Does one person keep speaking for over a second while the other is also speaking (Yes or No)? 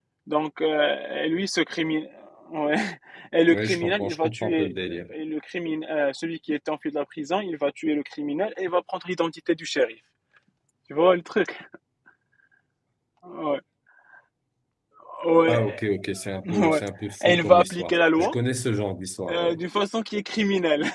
Yes